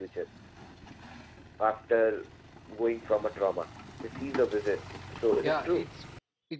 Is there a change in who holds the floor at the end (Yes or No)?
Yes